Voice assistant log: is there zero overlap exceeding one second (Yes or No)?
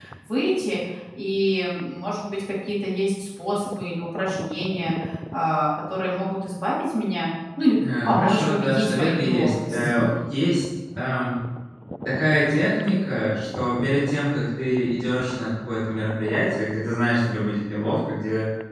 No